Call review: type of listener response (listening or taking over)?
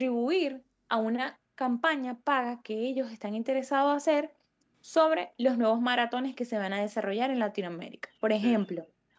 listening